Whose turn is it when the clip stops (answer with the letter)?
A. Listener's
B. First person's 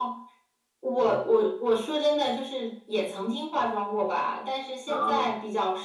B